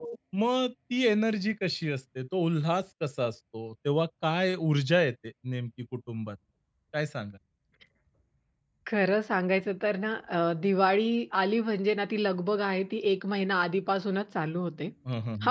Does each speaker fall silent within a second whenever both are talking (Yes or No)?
Yes